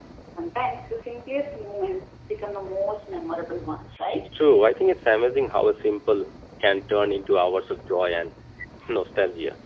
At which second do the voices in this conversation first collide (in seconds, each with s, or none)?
none